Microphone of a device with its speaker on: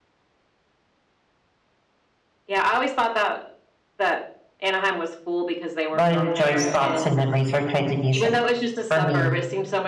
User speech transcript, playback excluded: A lot of Joy's thoughts and memories are tied to music for me.

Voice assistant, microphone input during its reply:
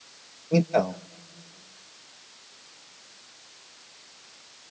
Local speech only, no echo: Então,

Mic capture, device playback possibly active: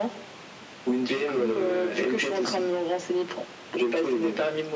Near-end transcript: none

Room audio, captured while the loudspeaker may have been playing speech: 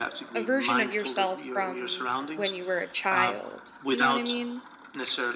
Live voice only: a version of yourself from when you were a child. You know what I mean?

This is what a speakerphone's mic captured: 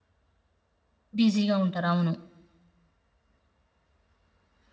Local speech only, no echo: బిజీగా ఉంటారు. అవును.

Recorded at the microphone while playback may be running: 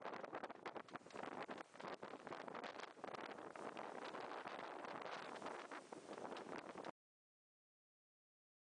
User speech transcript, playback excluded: none

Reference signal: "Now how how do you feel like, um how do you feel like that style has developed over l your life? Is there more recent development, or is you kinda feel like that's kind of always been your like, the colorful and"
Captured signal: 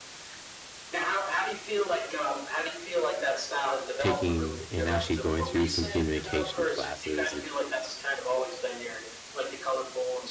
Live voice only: taking and actually going through some communication classes and

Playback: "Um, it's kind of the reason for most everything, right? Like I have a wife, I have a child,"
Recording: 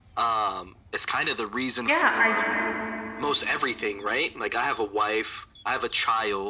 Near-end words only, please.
Yeah, I

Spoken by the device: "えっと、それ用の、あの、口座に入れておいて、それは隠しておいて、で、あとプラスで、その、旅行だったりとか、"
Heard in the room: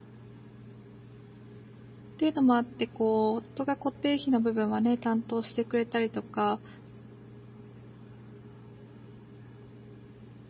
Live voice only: ていうのもあって、こう、夫が固定費の部分はね、担当してくれたりとか、

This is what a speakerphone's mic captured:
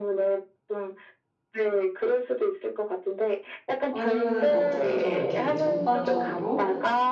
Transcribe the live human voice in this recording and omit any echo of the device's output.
아니면은 어떻게 좀 이렇게 전반적으로

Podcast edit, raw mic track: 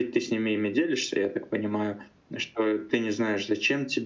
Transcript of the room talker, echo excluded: none

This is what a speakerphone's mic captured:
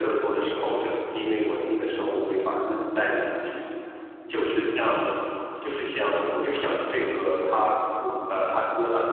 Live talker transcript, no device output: none

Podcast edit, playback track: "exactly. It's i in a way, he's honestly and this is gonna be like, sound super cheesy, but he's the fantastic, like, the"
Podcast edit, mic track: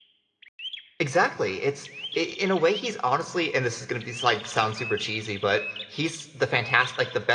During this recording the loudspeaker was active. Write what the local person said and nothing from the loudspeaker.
none

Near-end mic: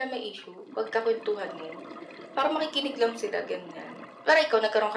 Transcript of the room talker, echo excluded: none

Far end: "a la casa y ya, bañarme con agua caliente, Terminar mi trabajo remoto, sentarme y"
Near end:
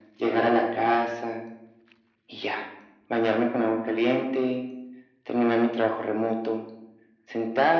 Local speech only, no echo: none

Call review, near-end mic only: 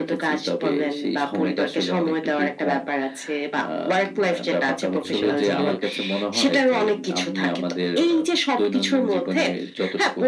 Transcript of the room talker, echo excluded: এইটা আসলে

